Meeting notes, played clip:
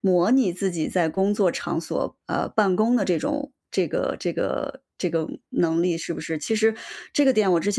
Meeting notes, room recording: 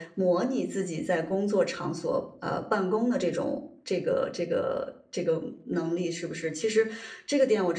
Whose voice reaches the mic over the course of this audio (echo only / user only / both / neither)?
echo only